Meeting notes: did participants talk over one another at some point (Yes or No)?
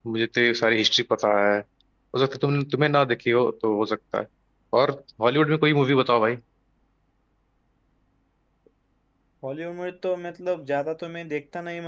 No